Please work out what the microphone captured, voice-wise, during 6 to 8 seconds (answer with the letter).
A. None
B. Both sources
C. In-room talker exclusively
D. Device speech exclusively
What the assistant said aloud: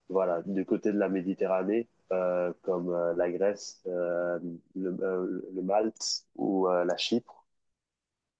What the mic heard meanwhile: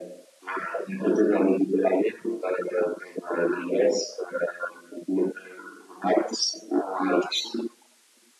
D